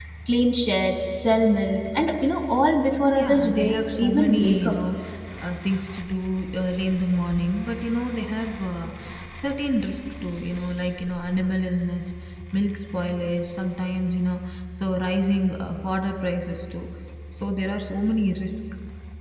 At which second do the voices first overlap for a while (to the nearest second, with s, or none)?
3 s